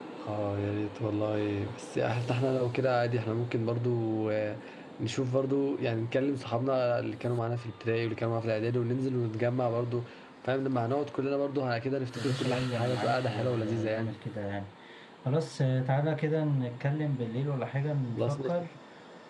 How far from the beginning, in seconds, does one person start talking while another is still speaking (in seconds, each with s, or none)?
12.2 s